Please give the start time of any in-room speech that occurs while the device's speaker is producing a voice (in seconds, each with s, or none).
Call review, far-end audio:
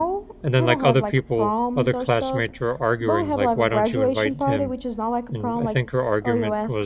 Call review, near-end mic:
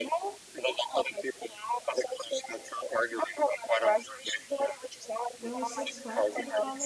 5.3 s